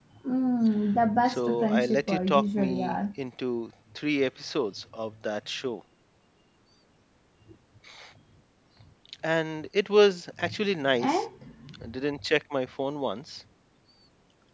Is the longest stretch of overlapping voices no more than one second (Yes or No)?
No